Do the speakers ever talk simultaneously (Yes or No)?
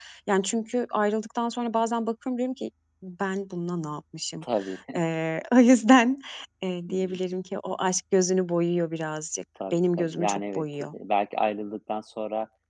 Yes